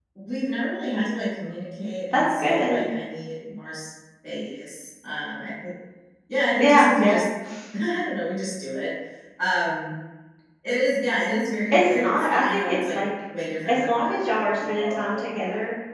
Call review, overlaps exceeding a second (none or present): present